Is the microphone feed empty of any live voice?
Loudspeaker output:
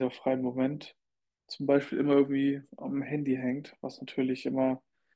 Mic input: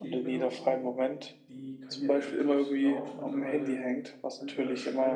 No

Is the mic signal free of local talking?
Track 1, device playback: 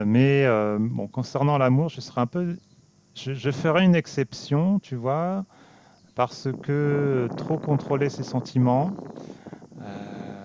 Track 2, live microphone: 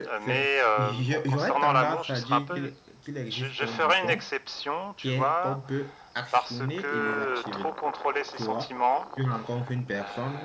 No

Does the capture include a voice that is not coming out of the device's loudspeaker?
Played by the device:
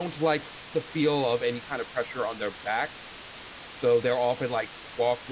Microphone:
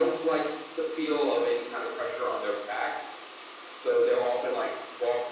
No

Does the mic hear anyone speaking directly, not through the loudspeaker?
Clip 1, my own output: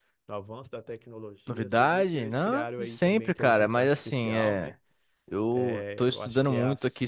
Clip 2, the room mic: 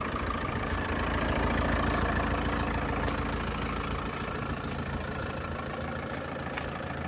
No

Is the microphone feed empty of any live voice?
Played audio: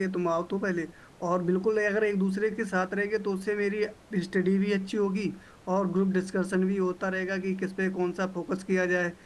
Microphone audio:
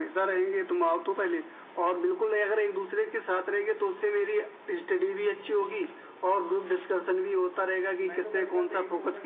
No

